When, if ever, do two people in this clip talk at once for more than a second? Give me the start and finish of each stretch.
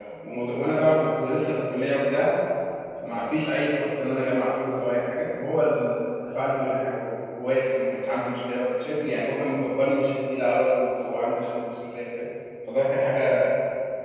none

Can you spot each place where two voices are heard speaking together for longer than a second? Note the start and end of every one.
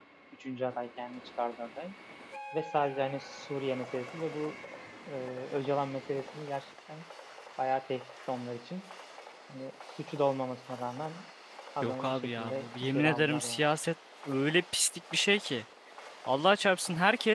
11.8-13.6

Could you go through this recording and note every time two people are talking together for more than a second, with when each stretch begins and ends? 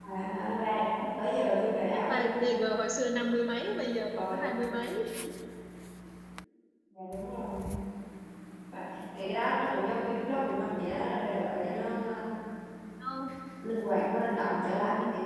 none

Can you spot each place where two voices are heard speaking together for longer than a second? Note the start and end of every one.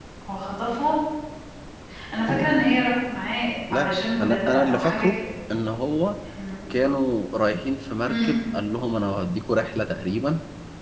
3.7-5.2

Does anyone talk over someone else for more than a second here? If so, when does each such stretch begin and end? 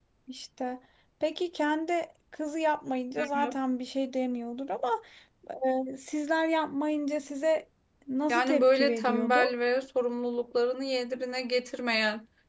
8.3-9.6

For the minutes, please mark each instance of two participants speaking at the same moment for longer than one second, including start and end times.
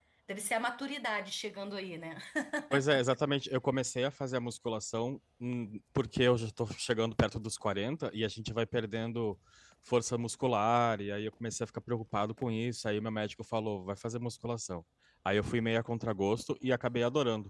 none

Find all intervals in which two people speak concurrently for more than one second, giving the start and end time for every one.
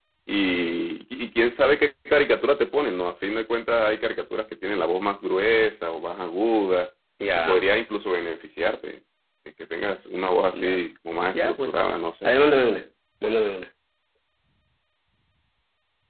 none

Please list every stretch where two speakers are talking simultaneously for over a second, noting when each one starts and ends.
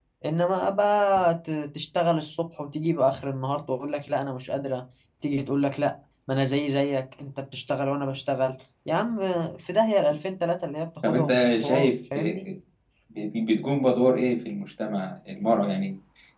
11.1-12.4

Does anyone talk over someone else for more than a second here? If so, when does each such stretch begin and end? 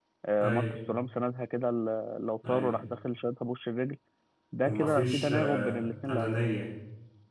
4.6-6.4

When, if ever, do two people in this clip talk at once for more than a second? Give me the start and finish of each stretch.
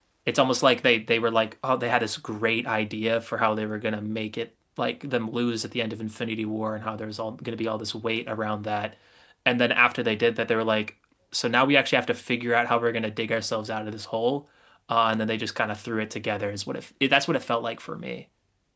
none

